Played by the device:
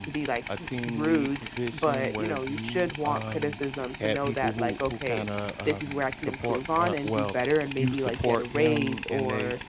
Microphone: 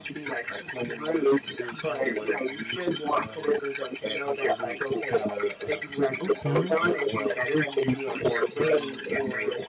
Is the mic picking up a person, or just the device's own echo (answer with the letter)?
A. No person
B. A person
B